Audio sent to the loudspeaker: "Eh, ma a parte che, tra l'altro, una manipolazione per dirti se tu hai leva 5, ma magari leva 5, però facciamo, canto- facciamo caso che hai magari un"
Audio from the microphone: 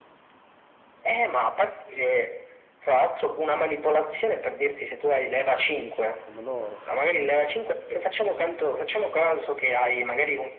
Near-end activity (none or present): present